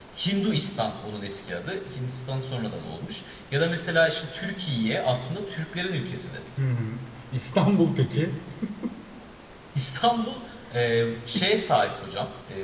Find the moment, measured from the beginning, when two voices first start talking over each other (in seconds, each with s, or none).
none